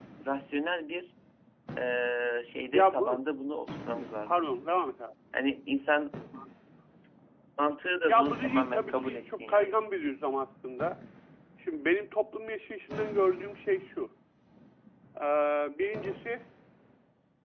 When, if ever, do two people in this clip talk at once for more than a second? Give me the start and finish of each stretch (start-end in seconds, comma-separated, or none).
8.0-9.8